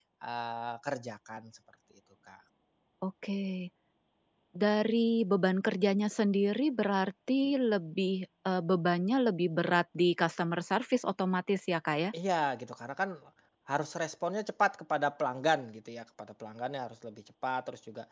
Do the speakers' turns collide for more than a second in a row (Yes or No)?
No